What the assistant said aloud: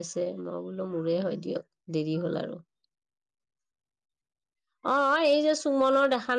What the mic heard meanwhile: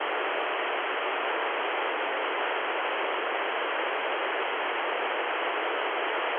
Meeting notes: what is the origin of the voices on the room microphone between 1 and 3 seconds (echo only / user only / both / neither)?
neither